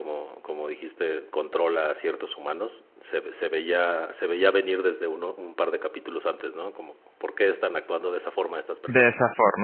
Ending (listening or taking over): taking over